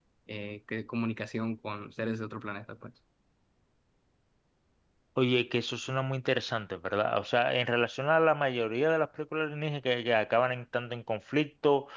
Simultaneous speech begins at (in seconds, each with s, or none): none